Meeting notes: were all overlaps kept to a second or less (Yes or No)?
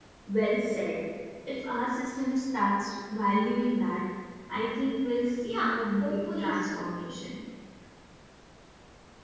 No